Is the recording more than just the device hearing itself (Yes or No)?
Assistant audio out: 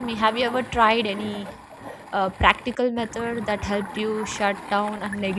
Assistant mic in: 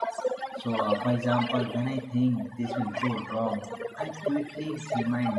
Yes